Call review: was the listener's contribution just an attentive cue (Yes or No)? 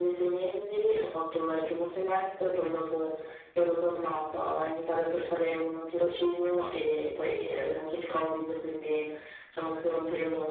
Yes